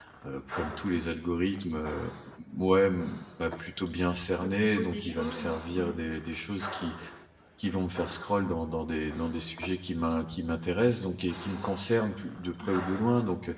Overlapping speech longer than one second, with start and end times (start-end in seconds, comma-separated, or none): 4.4-6.0